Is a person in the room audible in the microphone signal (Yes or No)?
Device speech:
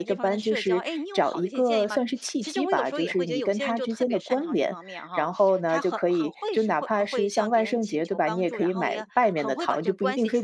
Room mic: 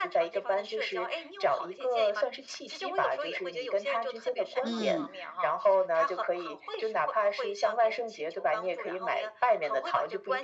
Yes